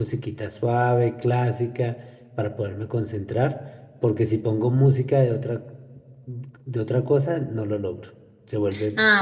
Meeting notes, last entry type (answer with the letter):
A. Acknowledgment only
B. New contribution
B